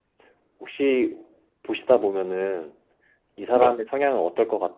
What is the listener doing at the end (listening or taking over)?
listening